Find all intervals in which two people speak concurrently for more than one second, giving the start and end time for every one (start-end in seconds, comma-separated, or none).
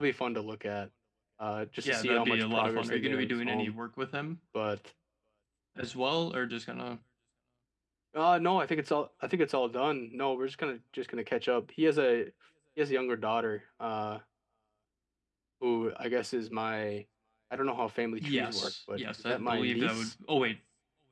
1.8-3.7, 18.2-20.1